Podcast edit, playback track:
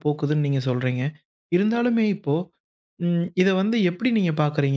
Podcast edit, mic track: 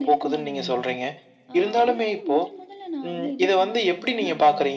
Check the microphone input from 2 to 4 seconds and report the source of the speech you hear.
both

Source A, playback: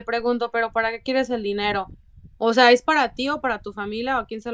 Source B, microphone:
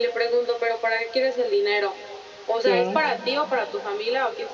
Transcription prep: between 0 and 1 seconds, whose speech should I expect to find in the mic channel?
echo only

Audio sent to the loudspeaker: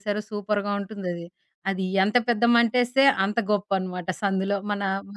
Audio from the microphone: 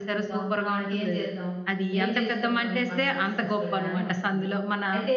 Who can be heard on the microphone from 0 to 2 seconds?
both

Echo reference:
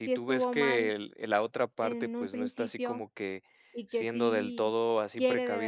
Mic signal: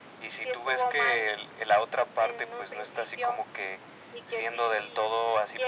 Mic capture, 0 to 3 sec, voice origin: echo only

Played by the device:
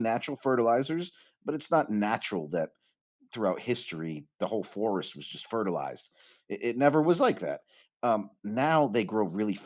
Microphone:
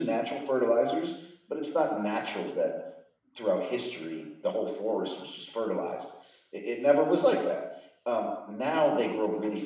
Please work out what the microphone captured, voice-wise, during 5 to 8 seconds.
echo only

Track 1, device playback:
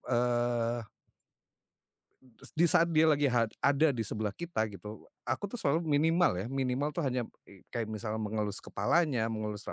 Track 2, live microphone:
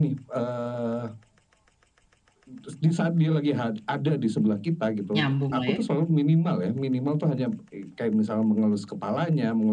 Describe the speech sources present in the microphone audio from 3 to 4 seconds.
echo only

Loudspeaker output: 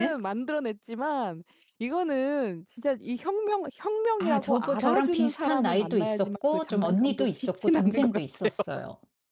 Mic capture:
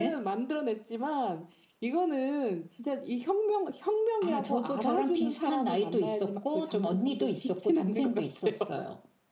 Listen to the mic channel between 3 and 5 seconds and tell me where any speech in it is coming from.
echo only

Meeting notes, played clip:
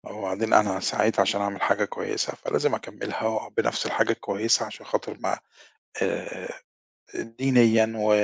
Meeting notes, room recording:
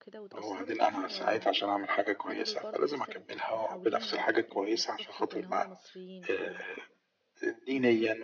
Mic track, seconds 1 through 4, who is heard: both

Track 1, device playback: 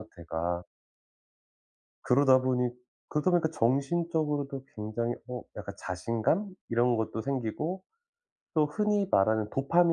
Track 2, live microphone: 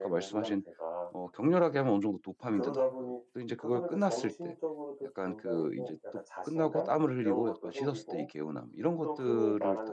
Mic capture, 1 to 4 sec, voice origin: both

